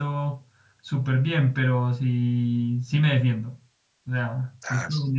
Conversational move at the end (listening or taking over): listening